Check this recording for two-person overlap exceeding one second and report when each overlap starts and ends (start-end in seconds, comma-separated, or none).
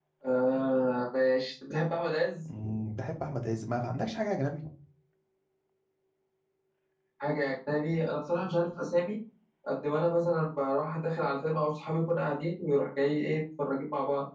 none